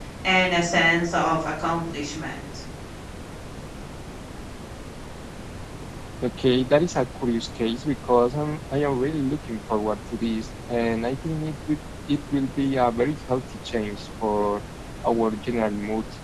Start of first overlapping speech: none

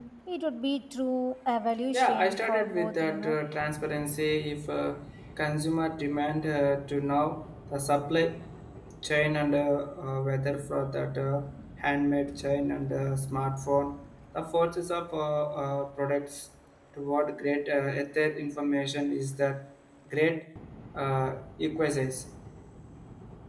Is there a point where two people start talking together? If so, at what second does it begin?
1.9 s

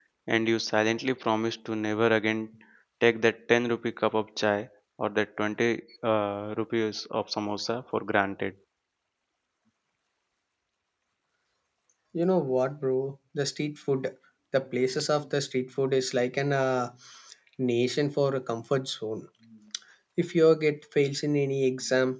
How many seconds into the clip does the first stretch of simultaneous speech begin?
none

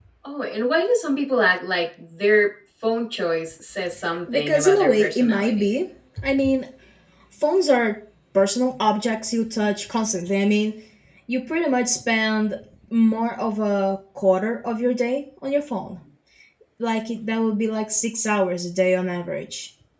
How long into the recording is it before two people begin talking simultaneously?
4.3 s

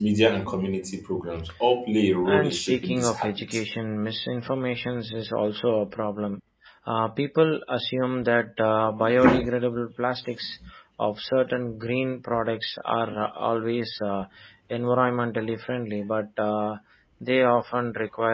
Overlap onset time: 2.2 s

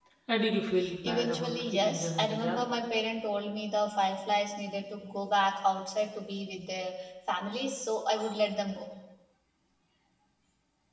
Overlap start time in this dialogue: 1.0 s

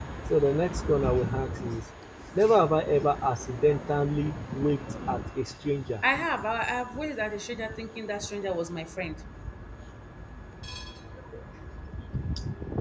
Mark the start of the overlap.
none

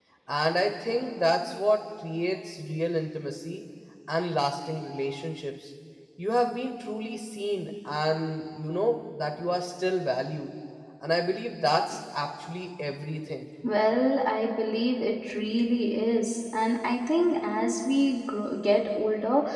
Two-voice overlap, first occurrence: none

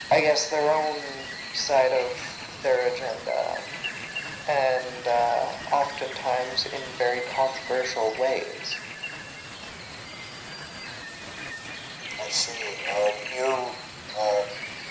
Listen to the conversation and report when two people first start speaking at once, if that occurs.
none

